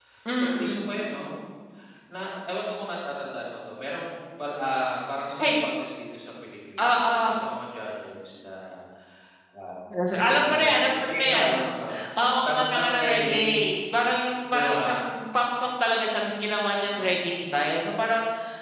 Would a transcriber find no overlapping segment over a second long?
No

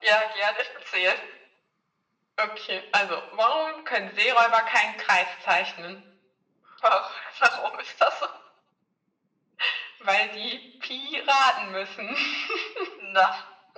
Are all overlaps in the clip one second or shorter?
Yes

